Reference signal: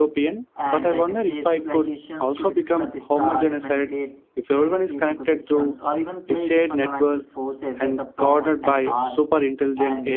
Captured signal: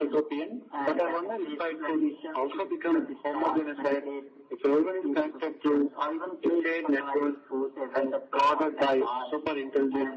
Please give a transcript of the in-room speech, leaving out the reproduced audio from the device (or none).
none